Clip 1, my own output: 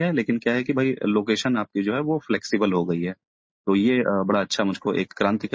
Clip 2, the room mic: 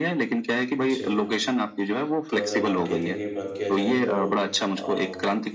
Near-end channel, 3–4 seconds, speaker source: both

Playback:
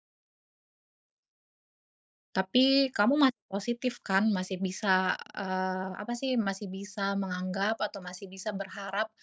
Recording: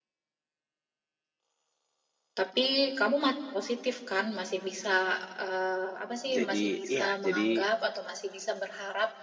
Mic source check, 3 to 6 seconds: echo only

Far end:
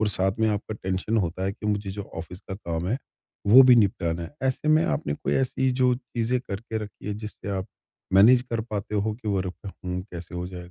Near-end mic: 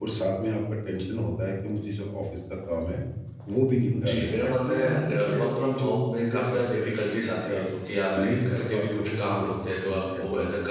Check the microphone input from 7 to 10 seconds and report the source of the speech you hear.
both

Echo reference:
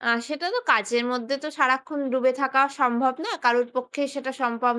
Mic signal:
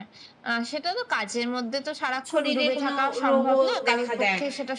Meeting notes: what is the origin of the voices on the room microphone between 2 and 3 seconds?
both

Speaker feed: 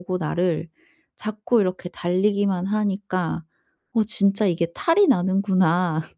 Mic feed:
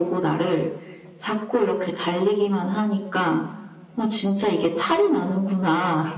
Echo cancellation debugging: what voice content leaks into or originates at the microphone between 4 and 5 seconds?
echo only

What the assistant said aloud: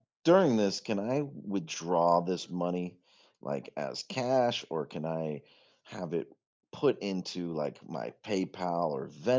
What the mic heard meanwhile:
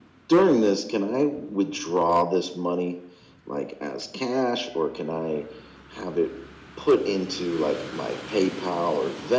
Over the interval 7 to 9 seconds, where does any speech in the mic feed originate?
echo only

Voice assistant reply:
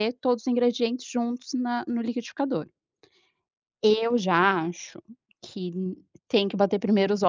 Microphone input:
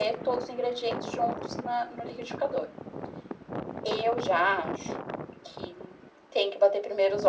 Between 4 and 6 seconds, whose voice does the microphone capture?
echo only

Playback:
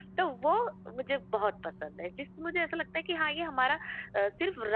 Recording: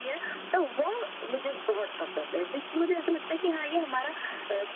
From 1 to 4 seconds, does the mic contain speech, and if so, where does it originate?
echo only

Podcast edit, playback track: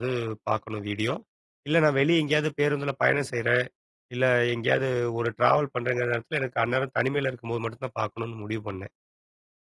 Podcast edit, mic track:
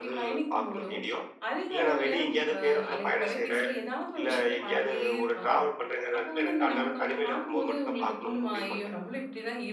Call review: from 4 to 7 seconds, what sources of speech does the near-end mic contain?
both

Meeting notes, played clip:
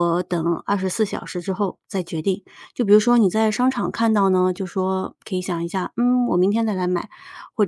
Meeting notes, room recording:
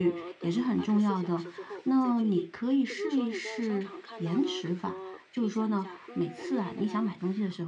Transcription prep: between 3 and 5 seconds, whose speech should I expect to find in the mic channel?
both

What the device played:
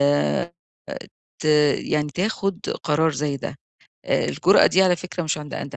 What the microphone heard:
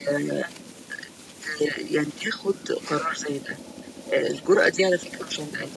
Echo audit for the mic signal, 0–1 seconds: echo only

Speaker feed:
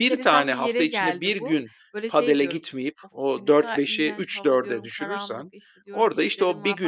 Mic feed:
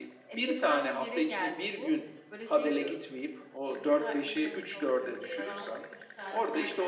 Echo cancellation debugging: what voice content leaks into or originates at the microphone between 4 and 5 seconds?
echo only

